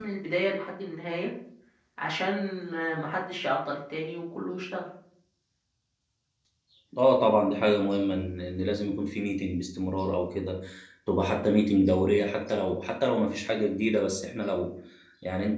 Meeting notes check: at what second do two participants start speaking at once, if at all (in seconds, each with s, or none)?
none